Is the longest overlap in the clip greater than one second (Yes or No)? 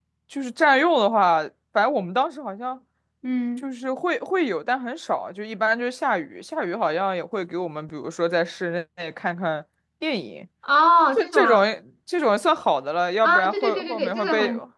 Yes